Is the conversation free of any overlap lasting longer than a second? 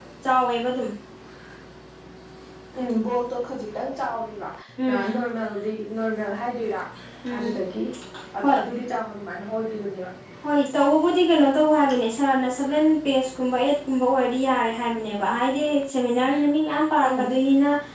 Yes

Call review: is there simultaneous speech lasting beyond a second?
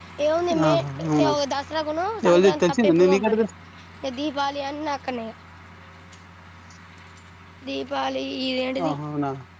Yes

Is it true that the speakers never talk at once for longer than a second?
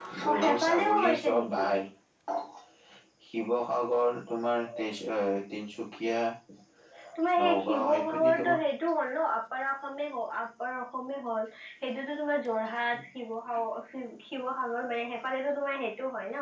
No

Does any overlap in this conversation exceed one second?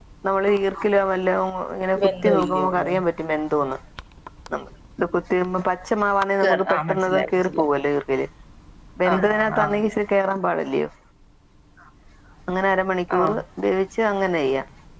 Yes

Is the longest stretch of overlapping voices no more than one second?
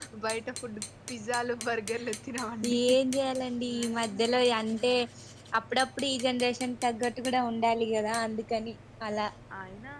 Yes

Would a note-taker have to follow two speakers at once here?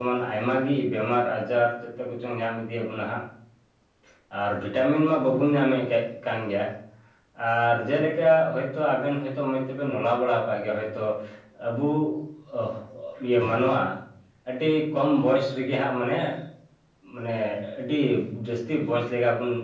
No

